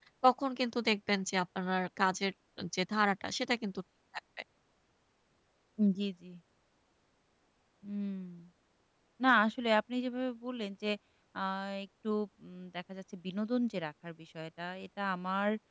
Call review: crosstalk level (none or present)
none